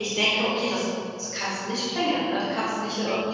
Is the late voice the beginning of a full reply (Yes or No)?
No